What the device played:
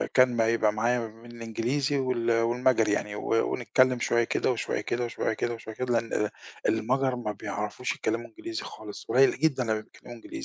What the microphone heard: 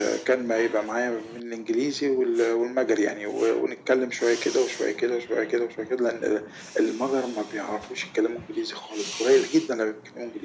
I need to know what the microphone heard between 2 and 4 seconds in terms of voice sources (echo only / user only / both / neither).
echo only